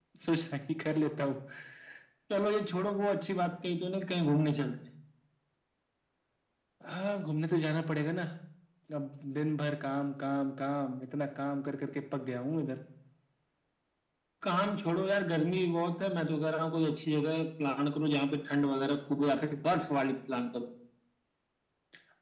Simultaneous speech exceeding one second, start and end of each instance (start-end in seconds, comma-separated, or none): none